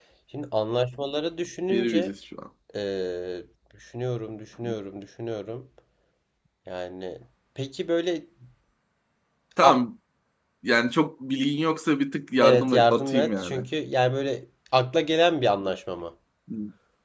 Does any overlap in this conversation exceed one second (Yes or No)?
Yes